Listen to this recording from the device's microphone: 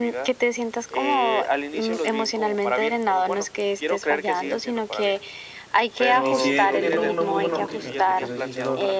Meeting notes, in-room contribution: present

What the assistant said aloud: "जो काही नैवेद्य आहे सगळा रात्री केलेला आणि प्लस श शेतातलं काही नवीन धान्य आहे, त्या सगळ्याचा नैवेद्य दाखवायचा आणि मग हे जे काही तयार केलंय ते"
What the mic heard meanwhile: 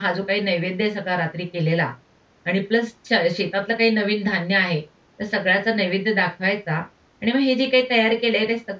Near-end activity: none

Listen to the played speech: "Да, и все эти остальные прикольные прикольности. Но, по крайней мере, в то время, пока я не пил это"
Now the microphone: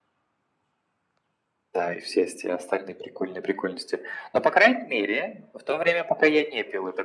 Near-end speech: none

